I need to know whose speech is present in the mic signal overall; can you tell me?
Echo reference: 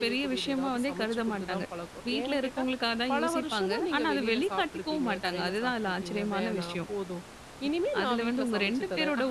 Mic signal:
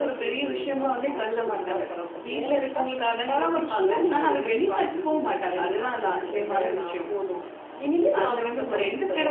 echo only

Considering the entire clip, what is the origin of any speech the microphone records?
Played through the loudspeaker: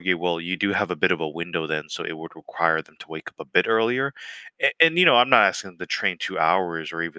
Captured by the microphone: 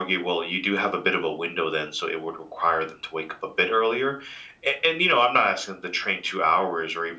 echo only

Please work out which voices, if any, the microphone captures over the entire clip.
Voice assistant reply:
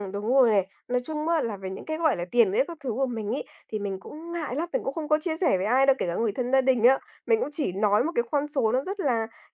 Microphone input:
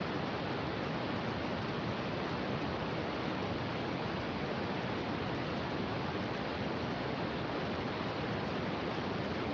neither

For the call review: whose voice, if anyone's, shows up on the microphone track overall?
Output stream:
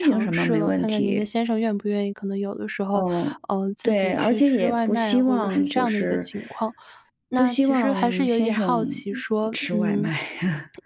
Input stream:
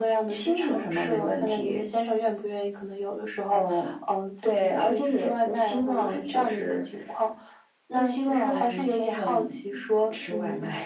echo only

